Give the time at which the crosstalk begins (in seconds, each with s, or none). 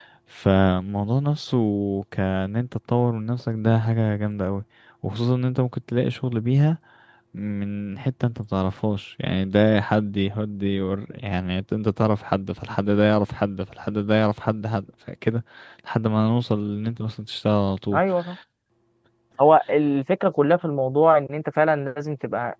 none